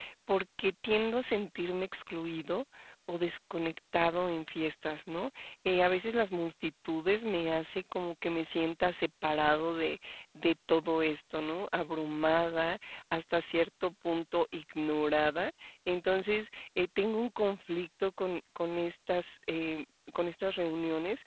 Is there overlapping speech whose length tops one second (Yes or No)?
No